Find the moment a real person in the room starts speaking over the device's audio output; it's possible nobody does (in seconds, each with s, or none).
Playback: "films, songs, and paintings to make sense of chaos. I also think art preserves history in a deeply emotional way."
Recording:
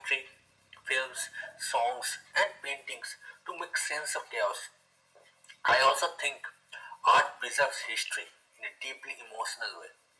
none